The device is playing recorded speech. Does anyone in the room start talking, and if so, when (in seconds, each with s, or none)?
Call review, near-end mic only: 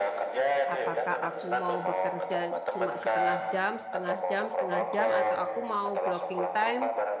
0.7 s